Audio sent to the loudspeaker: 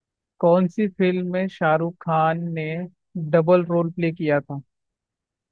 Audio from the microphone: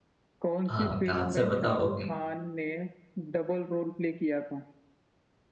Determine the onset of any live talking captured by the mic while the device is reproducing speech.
1 s

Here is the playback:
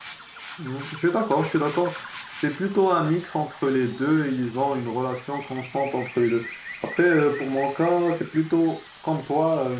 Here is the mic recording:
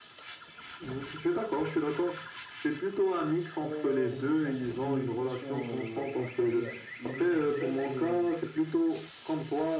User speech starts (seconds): 4 s

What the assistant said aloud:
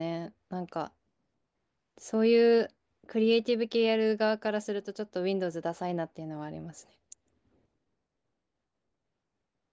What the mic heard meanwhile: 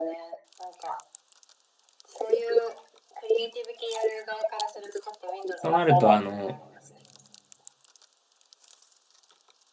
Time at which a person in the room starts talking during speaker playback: 6 s

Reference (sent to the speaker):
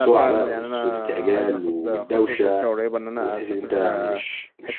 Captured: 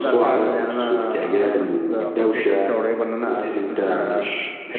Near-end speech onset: none

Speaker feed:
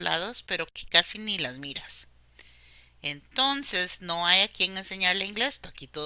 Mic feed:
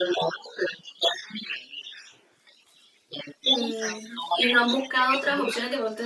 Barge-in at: 4 s

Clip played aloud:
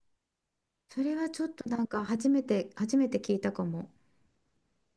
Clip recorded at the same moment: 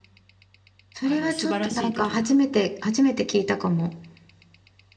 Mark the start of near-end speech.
1 s

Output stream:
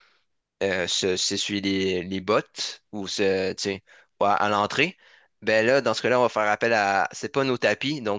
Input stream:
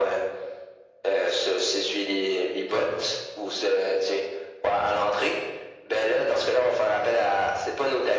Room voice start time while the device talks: none

